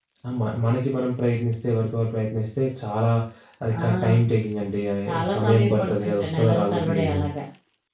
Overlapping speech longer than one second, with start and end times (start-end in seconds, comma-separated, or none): 5.1-7.2